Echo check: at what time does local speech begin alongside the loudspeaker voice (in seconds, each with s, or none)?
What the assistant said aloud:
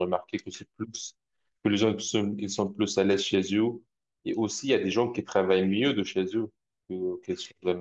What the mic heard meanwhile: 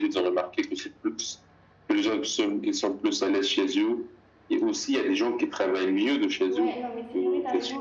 6.5 s